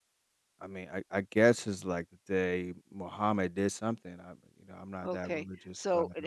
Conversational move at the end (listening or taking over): taking over